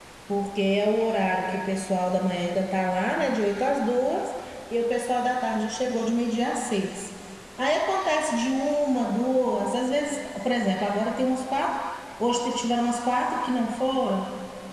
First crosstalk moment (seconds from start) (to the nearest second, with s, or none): none